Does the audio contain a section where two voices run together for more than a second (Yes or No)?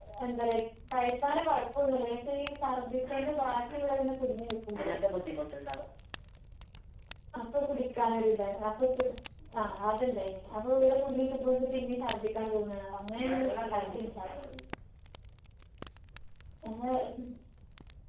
Yes